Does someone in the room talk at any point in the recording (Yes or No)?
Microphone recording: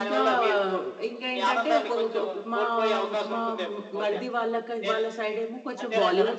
Yes